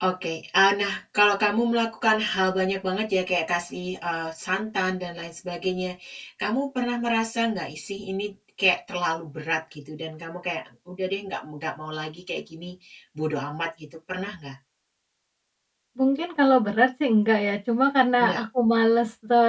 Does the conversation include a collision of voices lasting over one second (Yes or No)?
No